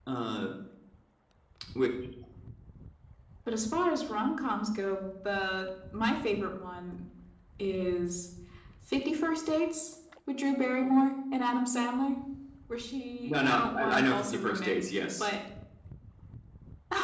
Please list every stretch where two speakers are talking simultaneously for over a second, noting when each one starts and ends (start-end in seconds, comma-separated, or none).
13.3-14.7